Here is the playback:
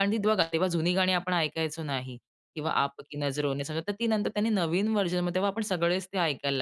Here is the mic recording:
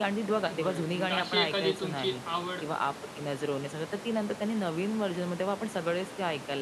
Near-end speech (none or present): present